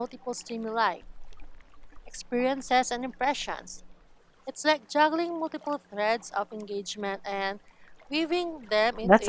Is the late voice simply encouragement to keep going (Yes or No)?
No